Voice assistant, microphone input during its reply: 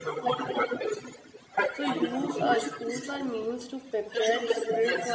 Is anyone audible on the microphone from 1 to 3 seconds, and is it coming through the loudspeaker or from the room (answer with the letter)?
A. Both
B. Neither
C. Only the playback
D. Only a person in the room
A